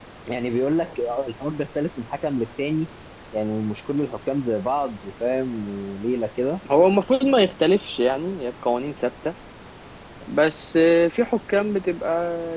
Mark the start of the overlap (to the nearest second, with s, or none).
none